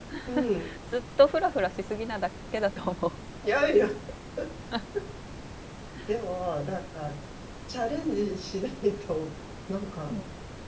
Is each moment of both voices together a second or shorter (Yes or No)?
Yes